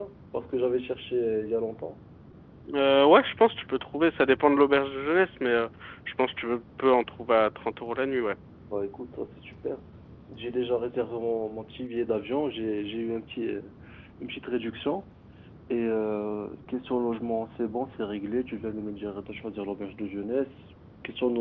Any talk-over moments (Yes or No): No